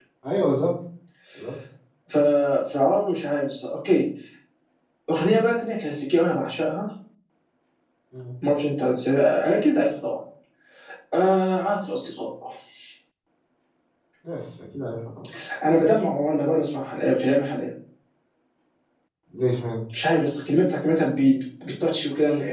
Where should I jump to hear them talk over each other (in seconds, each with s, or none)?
none